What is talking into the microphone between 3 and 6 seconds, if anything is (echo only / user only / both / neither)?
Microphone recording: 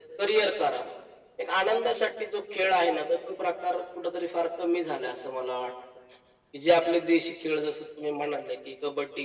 echo only